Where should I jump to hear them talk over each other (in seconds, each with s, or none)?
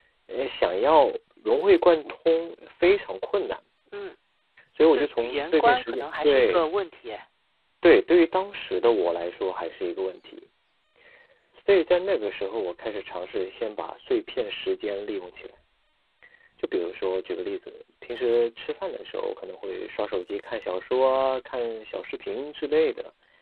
4.9 s